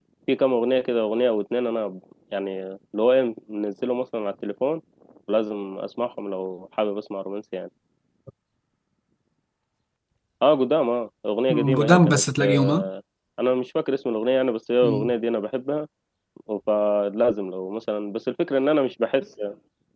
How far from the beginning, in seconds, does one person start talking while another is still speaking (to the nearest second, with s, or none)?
11 s